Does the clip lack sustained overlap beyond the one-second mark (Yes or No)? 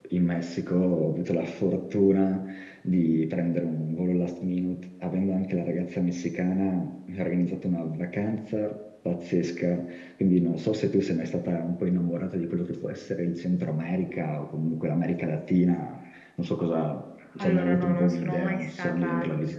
No